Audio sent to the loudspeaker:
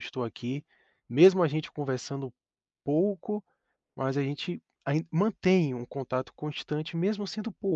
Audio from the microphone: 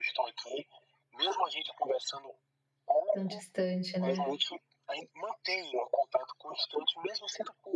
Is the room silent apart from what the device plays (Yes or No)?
No